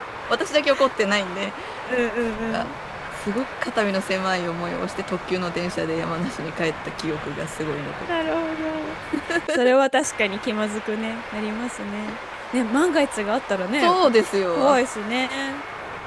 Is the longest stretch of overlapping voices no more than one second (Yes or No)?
Yes